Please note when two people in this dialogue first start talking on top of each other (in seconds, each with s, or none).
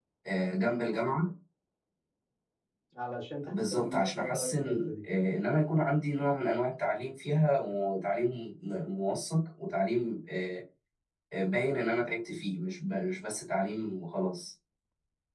3.5 s